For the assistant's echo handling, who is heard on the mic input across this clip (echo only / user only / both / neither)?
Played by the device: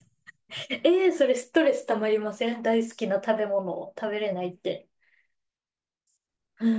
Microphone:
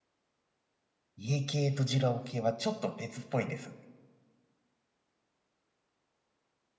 user only